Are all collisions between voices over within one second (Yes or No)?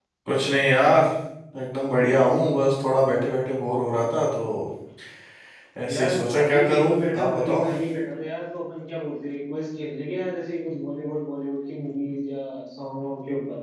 No